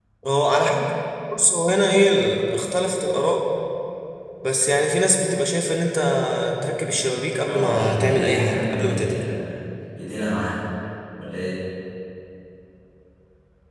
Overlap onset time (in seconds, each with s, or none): 7.5 s